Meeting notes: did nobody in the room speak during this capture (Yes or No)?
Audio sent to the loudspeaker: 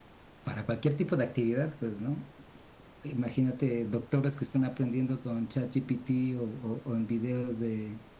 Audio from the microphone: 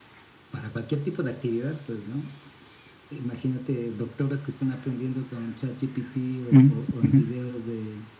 No